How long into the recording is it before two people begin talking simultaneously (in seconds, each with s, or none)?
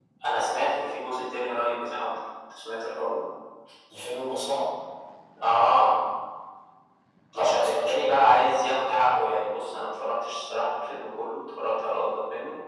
7.4 s